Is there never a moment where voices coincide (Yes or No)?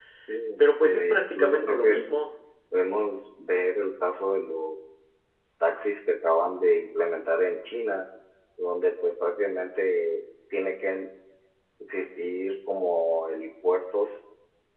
No